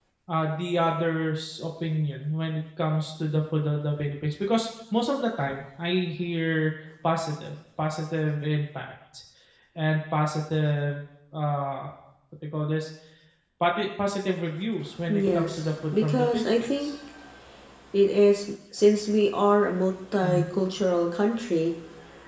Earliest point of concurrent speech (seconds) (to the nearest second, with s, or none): 15 s